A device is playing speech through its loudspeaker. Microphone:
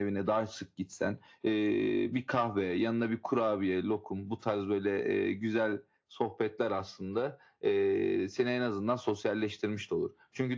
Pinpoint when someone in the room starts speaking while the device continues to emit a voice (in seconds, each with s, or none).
none